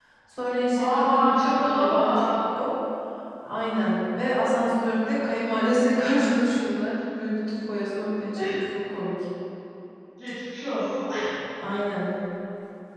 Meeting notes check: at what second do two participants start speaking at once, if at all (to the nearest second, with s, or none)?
1 s